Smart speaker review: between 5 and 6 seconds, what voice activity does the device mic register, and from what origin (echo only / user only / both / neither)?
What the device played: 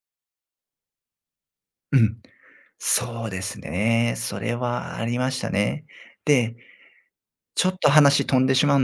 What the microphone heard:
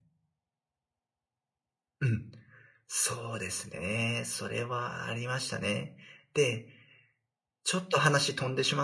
echo only